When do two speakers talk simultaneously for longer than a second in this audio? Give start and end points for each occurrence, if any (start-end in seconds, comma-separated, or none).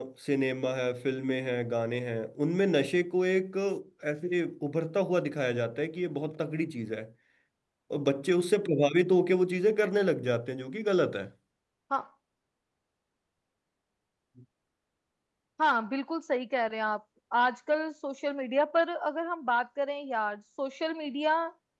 none